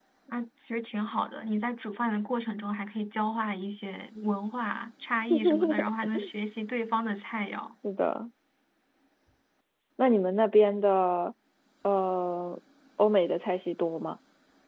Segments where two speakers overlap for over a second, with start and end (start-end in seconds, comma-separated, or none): none